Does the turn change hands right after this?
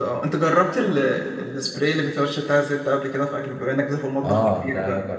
Yes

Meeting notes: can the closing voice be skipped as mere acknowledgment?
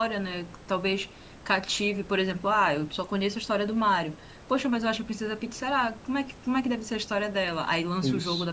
Yes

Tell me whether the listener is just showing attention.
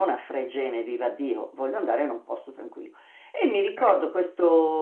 Yes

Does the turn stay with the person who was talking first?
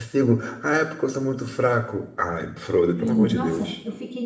No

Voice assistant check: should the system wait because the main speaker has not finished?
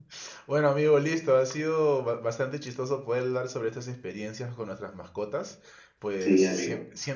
Yes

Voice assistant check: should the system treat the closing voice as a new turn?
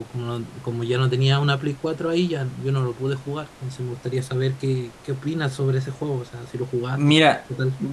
Yes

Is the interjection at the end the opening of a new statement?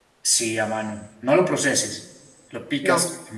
No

